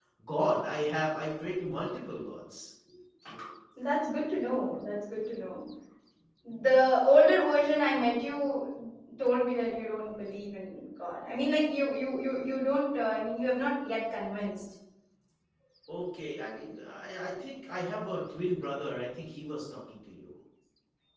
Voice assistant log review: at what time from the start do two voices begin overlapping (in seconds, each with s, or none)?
none